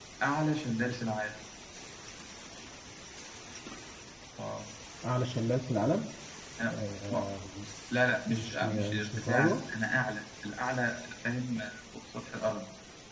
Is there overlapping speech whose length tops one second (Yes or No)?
Yes